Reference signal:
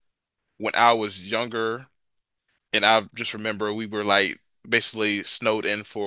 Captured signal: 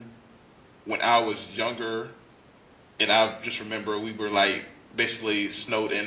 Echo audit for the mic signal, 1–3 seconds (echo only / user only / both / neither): echo only